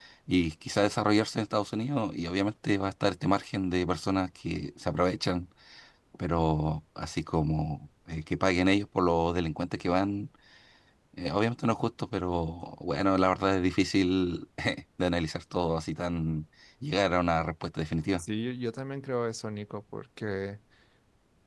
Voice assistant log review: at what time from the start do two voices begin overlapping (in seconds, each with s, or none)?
none